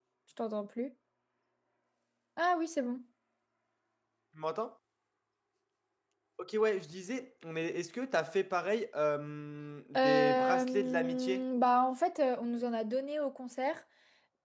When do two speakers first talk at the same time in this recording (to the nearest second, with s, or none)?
10 s